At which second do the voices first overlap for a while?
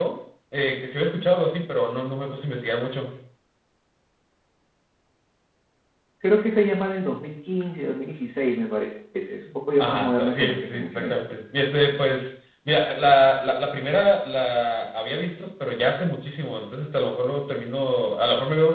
10 s

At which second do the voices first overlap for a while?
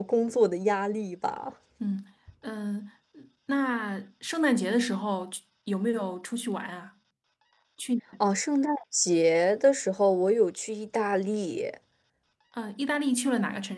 none

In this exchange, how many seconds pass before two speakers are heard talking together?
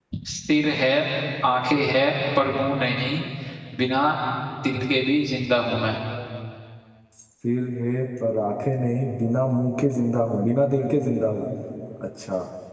none

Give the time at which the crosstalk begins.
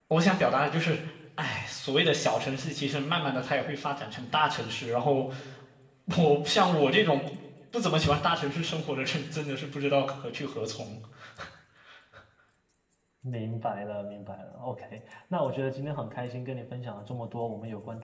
none

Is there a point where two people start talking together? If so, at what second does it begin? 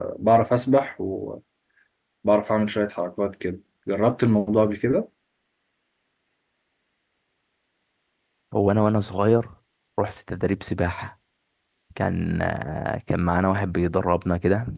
none

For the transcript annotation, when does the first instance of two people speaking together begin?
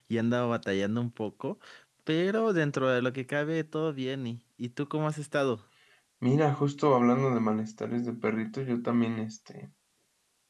none

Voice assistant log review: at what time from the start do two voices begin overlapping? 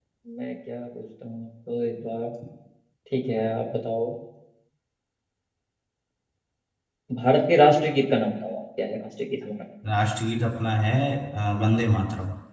none

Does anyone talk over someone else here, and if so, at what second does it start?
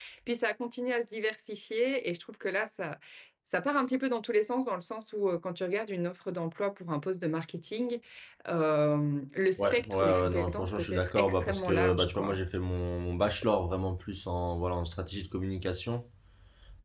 10 s

